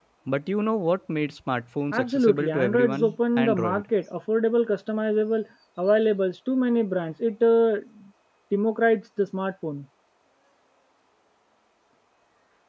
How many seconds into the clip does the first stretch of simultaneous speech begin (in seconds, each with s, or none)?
1.9 s